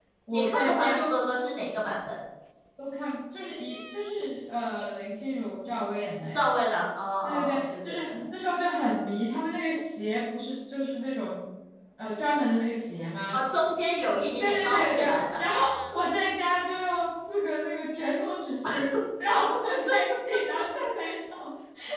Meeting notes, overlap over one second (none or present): present